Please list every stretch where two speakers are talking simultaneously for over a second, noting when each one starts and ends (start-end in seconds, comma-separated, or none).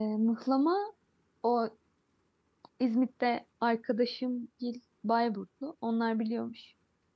none